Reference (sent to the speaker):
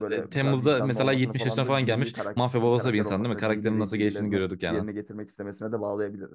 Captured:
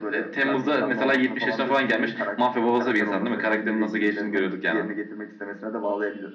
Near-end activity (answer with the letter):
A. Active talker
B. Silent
B